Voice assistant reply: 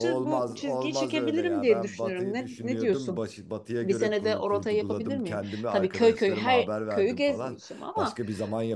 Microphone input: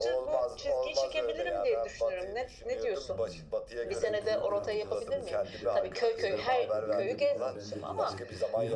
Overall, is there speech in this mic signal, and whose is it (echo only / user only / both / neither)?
both